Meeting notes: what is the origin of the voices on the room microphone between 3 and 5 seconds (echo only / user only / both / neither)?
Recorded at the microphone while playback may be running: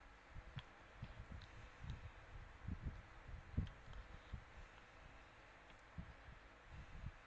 neither